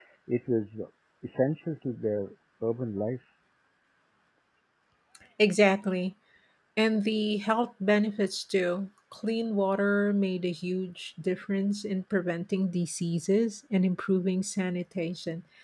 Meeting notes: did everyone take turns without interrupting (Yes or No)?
Yes